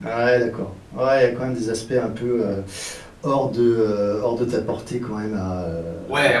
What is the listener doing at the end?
taking over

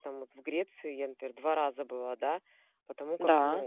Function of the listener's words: listening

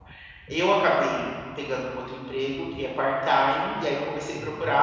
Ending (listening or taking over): listening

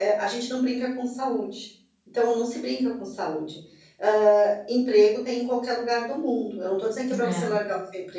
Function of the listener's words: listening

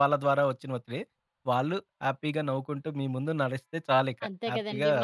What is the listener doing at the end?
taking over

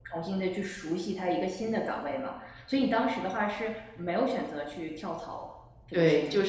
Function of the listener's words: taking over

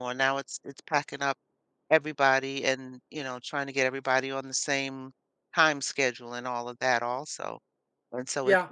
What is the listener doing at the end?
listening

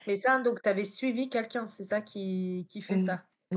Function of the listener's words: taking over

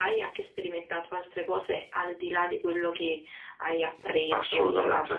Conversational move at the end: taking over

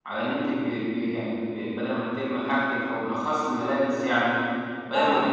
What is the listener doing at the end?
listening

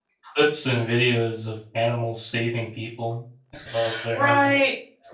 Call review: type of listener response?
taking over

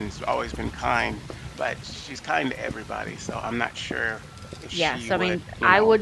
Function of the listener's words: taking over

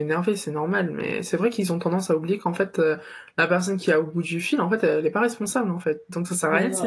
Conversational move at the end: taking over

